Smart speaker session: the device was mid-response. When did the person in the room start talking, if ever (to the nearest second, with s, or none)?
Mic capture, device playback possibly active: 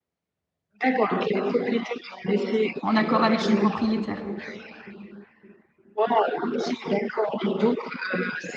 3 s